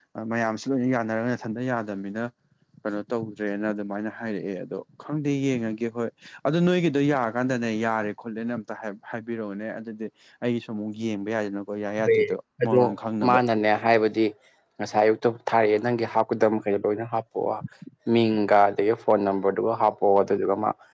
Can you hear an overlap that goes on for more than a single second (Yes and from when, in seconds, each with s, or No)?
No